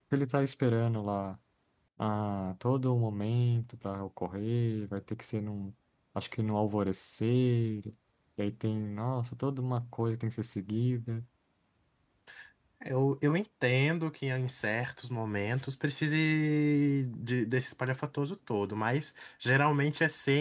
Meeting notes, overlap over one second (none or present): none